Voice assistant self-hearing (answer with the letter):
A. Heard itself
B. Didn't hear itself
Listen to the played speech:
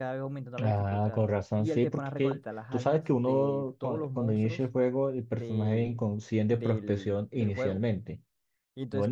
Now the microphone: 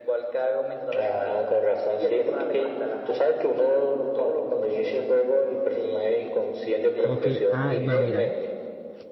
A